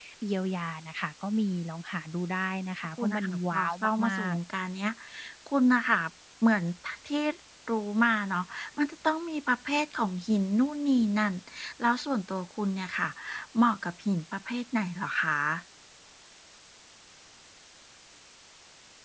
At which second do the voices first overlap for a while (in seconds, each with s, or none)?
3.0 s